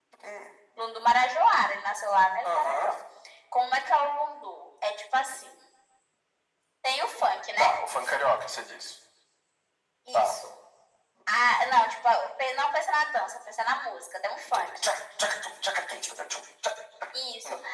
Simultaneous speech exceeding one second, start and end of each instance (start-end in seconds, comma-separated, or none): none